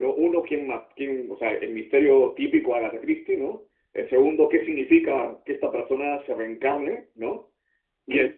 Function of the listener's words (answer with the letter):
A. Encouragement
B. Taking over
A